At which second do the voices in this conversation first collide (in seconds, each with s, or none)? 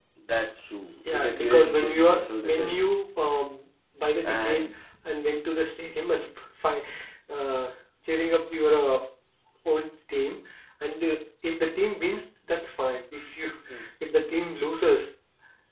1.1 s